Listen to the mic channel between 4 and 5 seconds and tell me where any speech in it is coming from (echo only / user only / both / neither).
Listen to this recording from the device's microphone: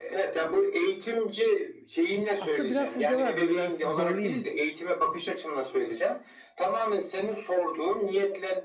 both